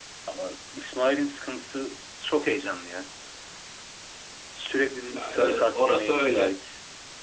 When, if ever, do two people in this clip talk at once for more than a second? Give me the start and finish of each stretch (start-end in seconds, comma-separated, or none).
5.1-6.6